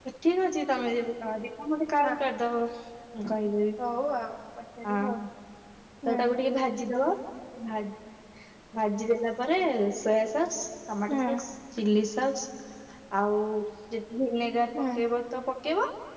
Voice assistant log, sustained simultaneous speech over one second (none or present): none